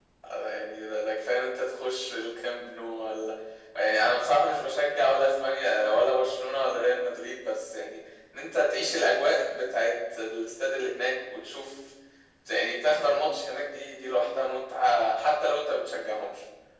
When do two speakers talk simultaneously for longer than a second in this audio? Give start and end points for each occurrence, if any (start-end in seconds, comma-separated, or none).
none